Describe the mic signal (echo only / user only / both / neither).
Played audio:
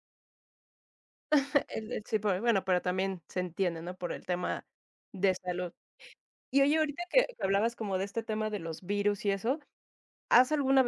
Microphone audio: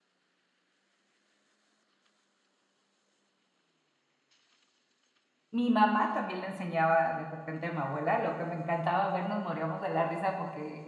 user only